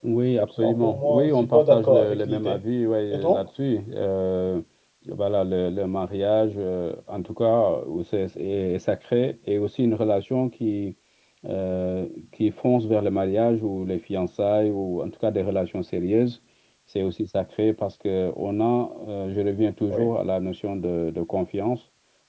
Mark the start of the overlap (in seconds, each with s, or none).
0.6 s